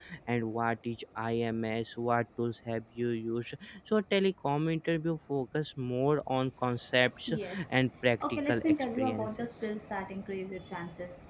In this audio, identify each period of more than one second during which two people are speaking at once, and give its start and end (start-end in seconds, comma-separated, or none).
8.2-9.7